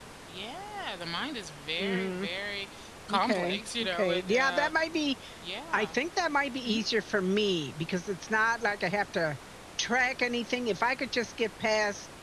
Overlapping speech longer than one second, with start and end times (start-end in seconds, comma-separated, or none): 3.1-4.7